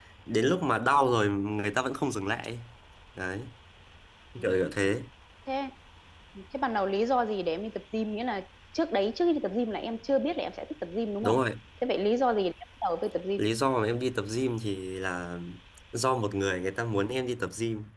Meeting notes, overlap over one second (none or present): none